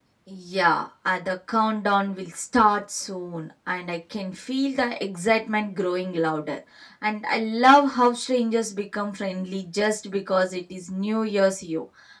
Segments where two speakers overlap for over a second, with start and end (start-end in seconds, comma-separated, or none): none